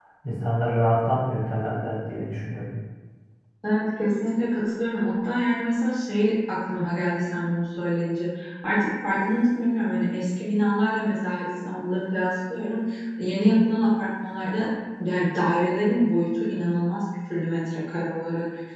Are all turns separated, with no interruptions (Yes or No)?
Yes